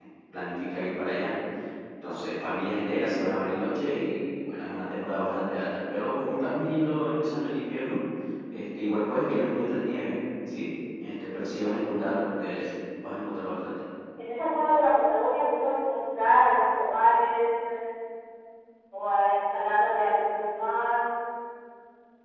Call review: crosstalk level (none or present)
none